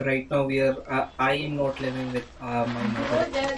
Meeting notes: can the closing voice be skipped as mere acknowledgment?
No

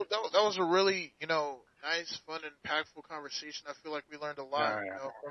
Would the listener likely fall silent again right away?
Yes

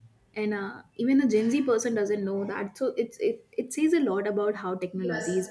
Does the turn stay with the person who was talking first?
No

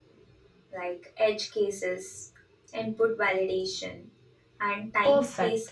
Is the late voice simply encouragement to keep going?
No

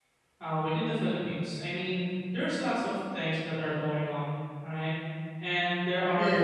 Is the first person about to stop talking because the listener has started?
No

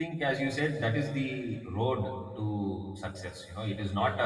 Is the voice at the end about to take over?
No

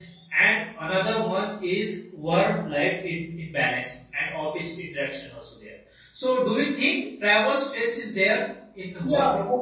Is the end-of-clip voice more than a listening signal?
Yes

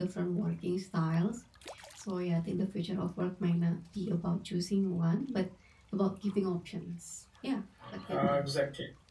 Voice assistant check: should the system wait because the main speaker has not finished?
No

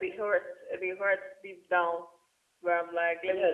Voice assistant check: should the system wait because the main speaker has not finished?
No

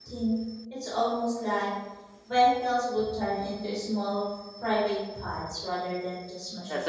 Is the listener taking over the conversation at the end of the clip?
Yes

